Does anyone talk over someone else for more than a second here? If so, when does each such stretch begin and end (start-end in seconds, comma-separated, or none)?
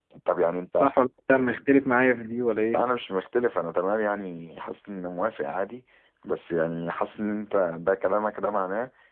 none